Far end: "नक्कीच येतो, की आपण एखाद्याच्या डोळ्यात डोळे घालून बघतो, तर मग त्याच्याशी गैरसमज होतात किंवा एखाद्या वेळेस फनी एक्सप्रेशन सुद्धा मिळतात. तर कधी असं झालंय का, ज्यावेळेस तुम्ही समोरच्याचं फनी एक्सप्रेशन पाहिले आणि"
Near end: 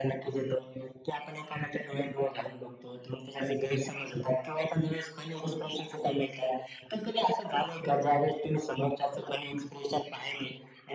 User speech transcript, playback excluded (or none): none